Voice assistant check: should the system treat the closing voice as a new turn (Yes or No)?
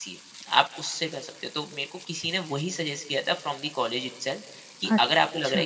No